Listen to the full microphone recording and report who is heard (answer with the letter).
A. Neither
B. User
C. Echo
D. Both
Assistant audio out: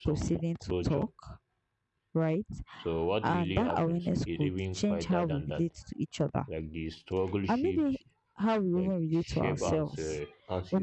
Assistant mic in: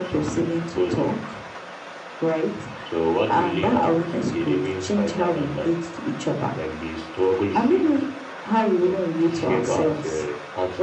C